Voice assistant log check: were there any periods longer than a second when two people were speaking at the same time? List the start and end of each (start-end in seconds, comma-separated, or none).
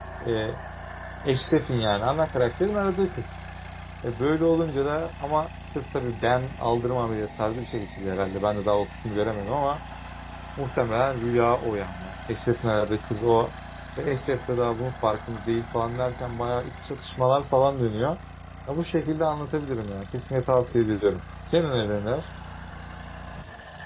none